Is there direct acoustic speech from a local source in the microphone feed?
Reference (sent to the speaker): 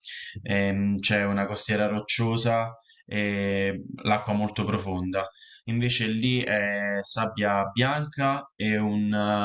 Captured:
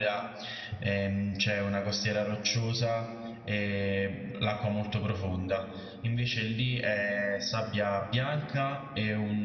No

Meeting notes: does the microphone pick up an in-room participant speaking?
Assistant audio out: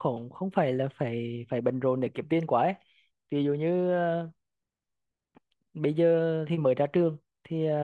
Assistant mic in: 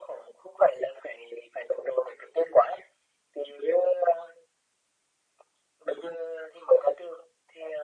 No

